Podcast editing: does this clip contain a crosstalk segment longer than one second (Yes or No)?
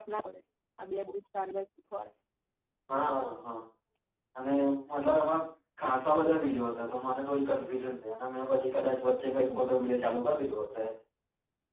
No